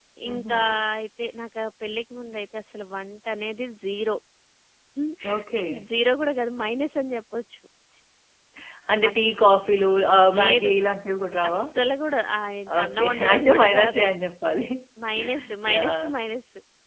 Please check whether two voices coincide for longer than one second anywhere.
Yes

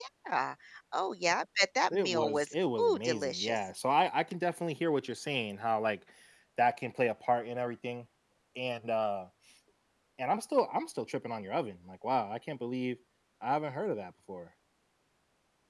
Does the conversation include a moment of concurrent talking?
Yes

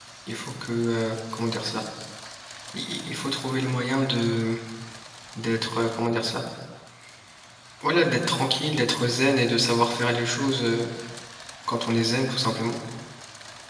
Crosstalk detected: No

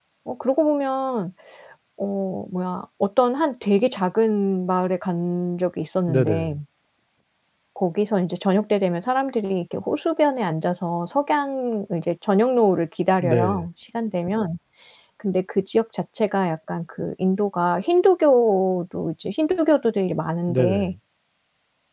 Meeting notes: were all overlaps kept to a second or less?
Yes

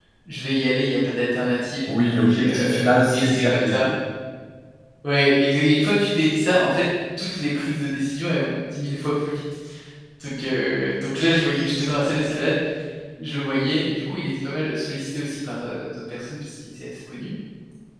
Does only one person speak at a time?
No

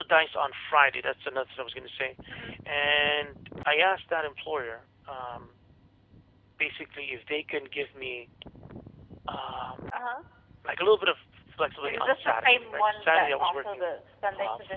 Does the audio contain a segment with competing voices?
Yes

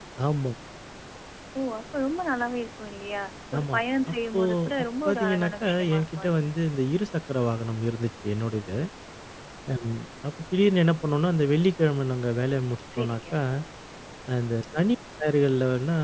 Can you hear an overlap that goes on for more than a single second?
Yes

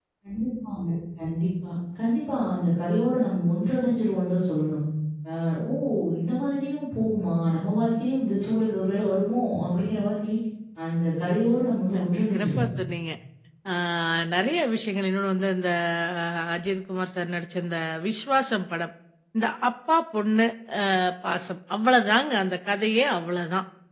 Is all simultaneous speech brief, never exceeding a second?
Yes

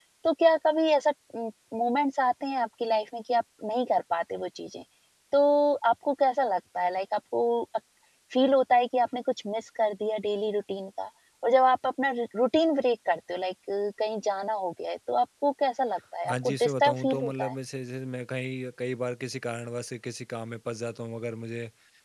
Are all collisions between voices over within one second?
No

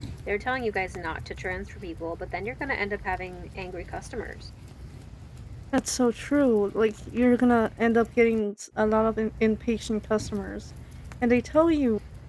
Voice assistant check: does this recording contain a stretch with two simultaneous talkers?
No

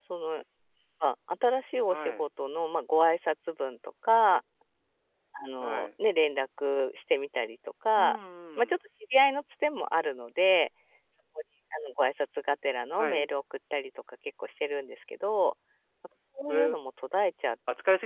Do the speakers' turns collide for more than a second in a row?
No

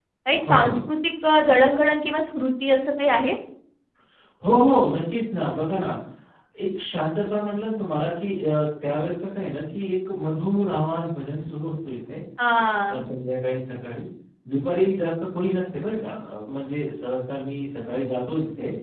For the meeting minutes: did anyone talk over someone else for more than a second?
No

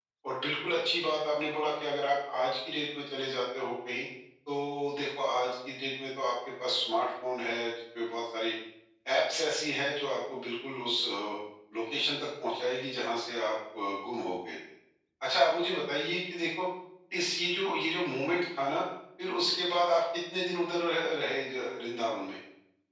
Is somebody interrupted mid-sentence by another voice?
No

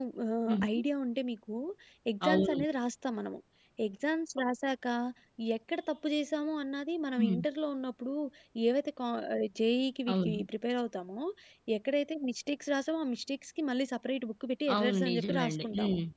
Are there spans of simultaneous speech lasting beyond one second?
Yes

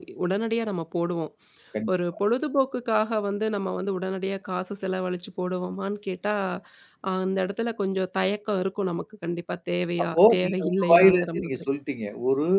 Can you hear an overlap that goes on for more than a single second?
Yes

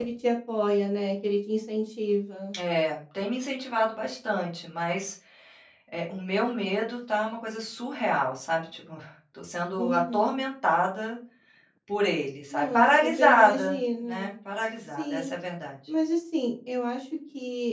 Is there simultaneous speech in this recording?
Yes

